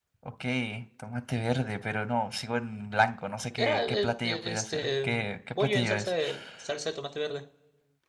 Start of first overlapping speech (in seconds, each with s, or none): 3.6 s